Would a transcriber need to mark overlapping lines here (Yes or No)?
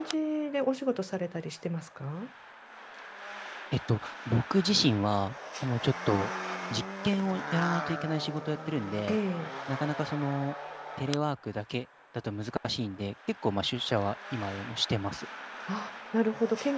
No